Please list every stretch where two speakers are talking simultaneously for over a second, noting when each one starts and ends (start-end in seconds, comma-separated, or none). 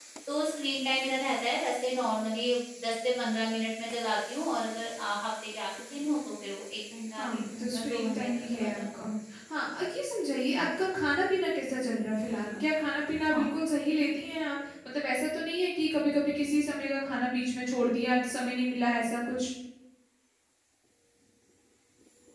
7.2-8.8